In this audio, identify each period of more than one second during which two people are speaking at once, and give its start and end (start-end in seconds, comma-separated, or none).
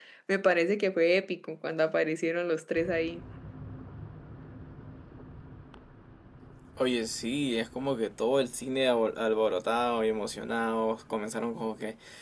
none